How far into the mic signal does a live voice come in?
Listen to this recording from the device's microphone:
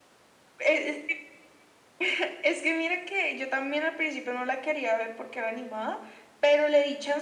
none

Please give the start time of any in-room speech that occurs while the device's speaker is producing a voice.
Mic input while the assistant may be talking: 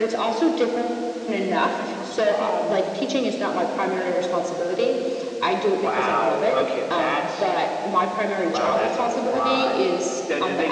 1.8 s

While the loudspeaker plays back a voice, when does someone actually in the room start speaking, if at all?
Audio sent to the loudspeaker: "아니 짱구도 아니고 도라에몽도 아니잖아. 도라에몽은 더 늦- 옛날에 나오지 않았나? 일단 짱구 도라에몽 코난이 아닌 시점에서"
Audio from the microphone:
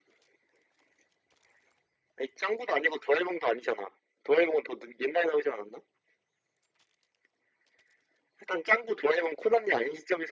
none

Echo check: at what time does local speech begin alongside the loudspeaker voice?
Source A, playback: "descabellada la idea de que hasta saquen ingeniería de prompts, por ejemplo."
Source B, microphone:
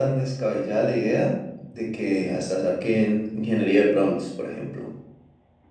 none

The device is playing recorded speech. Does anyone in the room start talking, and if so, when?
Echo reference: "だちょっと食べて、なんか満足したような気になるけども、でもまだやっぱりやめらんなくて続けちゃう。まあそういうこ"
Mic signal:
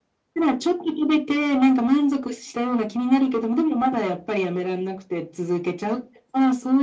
none

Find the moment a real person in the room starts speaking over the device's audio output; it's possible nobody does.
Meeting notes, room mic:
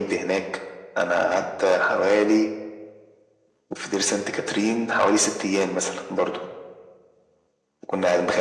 none

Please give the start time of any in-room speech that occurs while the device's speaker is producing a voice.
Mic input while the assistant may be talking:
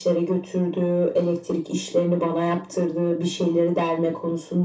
none

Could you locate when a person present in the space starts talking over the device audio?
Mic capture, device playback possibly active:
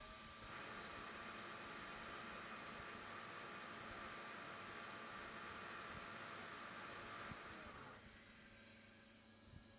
none

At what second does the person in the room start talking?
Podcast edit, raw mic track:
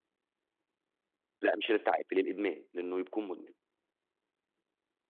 1.4 s

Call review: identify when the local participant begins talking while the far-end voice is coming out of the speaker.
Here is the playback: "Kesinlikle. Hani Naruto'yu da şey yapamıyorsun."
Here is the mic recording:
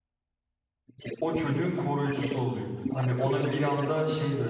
1.2 s

